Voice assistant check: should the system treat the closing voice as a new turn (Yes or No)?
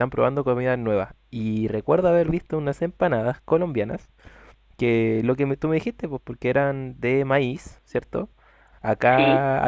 No